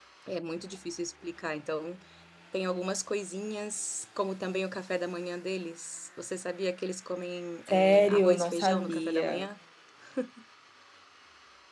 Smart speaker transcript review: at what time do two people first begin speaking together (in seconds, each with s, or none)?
7.7 s